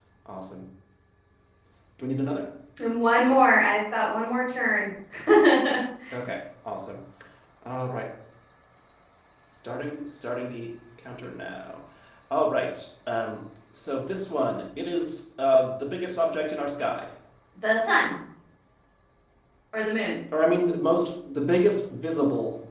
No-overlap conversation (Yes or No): Yes